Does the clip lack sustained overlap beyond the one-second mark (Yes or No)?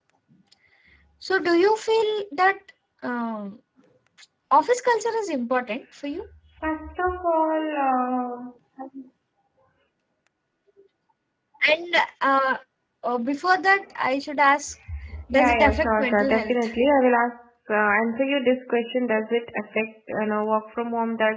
No